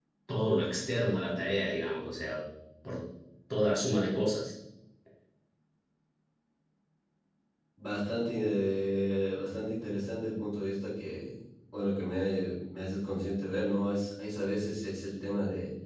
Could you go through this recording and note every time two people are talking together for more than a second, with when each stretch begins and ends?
none

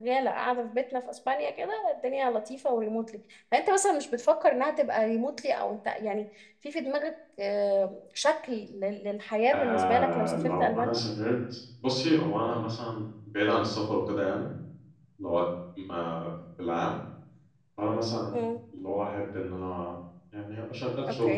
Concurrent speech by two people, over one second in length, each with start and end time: 9.5-11.0

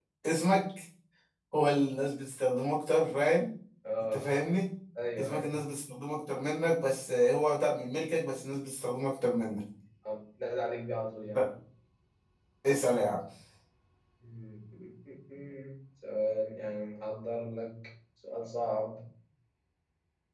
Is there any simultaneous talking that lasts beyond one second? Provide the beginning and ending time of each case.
none

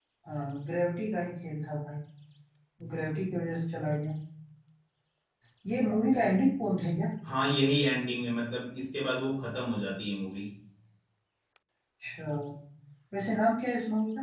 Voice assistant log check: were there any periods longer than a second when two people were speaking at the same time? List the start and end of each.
none

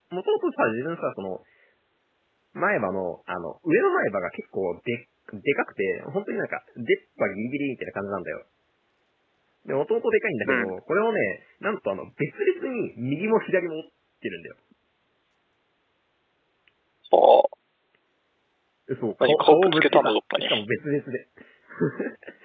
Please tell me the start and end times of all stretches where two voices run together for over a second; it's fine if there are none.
19.2-20.5

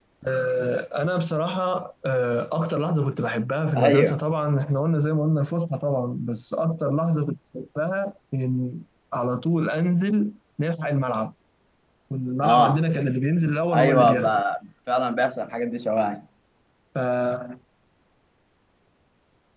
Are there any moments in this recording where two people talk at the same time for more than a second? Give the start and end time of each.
none

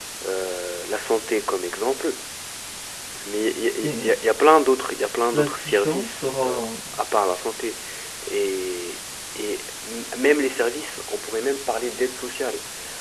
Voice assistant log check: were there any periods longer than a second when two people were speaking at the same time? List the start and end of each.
5.3-6.6

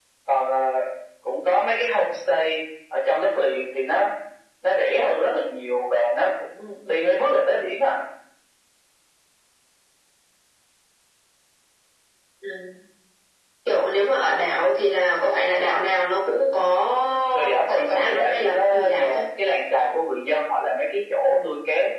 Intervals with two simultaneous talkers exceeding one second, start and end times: 17.3-19.2

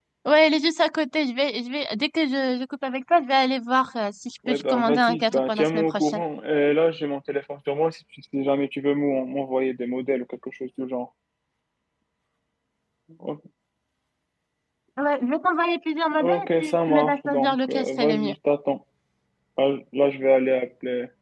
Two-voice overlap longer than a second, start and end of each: 4.5-6.2, 16.2-18.3

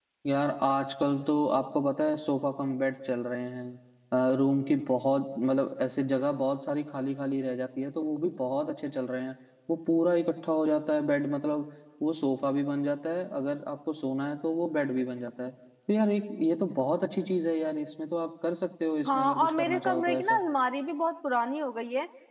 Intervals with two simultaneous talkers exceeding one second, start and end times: 19.1-20.4

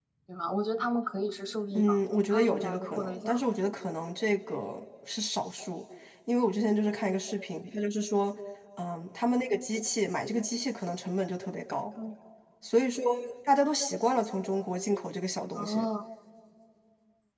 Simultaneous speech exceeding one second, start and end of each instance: 1.7-3.5

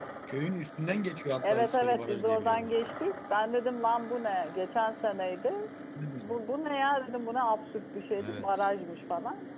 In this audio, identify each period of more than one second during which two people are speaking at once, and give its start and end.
1.4-2.7

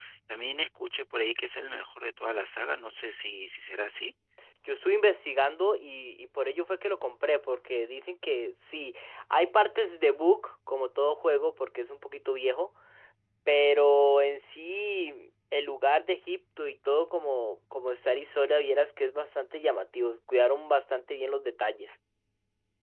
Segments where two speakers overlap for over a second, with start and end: none

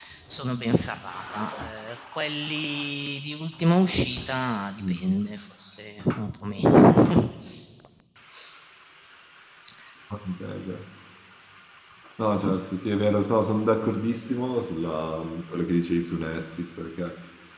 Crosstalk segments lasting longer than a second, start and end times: none

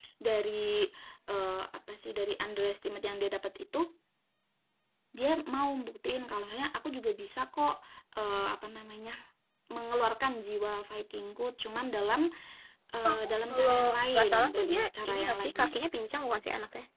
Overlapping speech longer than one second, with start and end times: 13.0-15.7

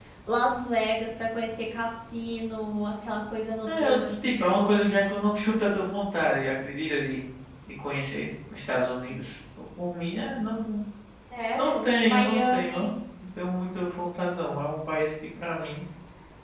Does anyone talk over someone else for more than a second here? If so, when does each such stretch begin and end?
3.7-4.9, 11.6-12.9

